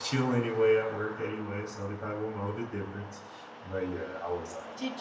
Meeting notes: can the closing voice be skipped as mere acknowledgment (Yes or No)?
No